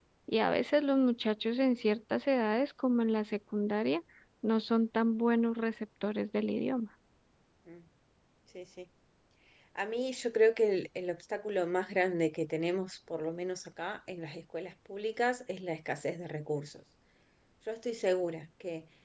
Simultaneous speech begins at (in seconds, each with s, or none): none